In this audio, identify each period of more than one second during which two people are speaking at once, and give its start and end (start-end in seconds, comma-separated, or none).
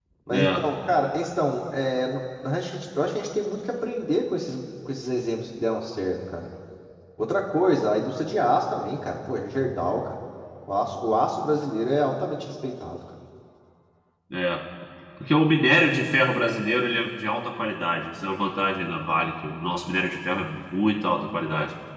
none